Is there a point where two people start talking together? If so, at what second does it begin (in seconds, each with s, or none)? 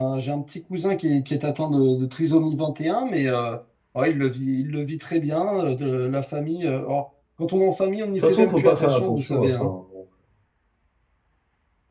8.2 s